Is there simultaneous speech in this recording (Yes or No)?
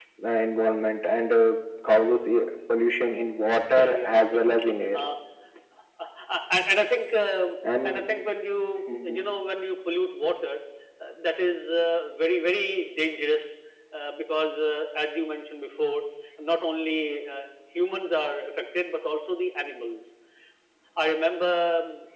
Yes